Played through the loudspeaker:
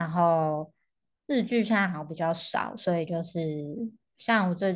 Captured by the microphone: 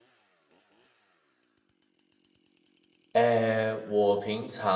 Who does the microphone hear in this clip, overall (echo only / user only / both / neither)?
user only